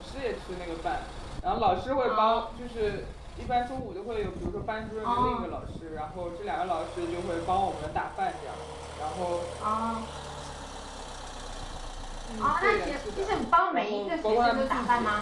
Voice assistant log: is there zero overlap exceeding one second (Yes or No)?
No